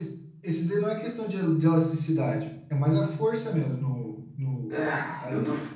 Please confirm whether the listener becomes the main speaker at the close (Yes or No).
Yes